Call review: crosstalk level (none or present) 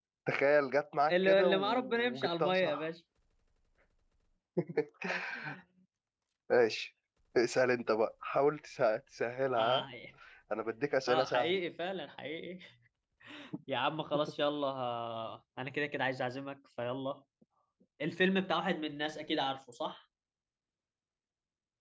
present